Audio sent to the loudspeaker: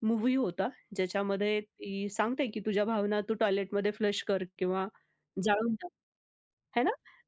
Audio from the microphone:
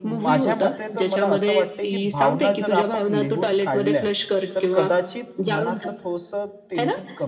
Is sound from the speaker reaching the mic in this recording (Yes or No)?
Yes